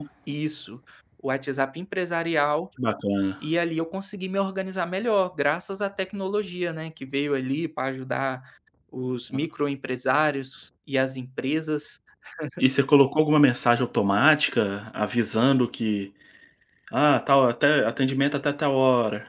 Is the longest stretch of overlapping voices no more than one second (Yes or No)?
Yes